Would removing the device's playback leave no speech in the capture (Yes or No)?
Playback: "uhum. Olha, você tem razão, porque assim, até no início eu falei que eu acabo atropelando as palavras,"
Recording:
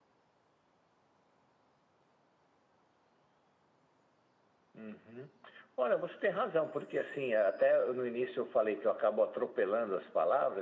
Yes